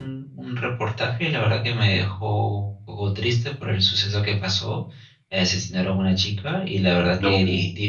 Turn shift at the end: No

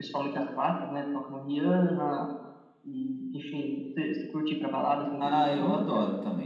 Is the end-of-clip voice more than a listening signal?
Yes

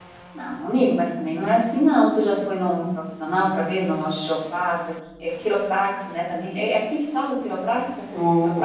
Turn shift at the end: Yes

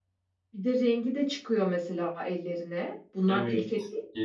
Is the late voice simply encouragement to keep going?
No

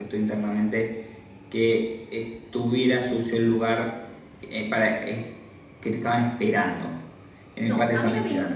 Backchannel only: No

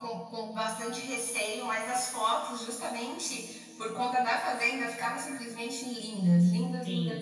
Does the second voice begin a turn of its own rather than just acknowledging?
Yes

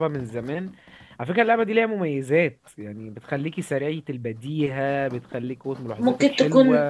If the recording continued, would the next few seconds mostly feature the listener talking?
Yes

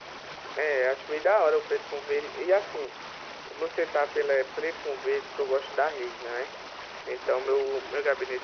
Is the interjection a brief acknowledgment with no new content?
Yes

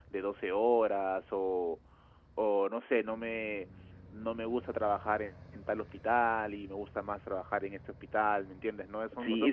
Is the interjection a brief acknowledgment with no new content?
No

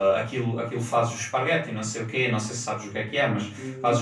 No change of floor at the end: Yes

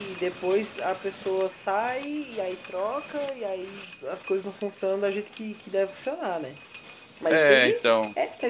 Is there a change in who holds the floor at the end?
No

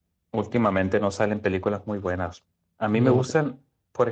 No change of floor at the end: Yes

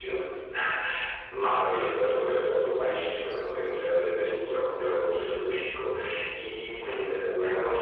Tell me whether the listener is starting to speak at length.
No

